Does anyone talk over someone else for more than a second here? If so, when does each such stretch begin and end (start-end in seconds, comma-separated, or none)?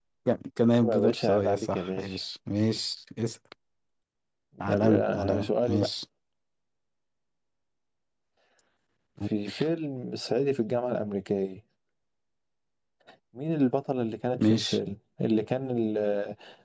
0.8-2.2, 4.7-5.9